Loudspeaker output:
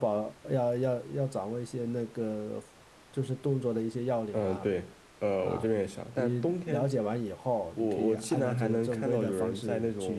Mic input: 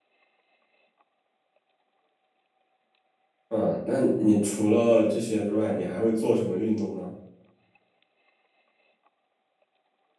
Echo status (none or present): none